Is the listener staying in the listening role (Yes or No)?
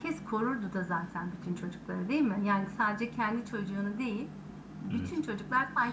Yes